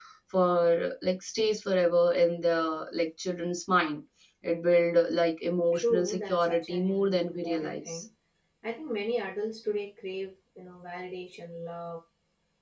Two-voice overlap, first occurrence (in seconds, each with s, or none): 5.7 s